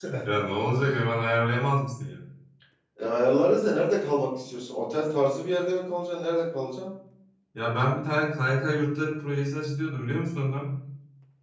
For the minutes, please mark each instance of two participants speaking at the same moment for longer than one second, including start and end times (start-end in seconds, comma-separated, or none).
none